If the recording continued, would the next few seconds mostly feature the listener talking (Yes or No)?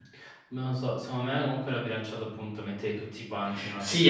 Yes